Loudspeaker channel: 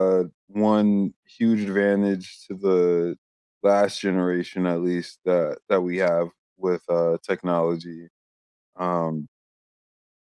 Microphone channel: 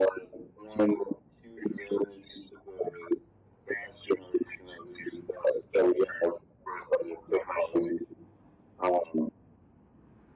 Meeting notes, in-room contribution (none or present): none